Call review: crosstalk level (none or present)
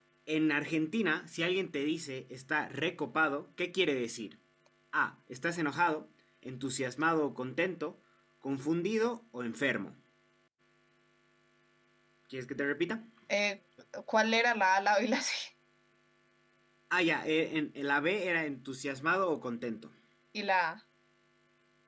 none